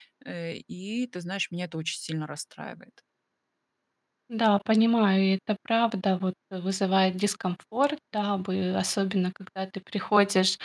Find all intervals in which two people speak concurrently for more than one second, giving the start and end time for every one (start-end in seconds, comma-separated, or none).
none